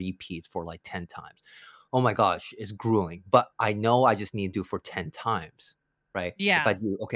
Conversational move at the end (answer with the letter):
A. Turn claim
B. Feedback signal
B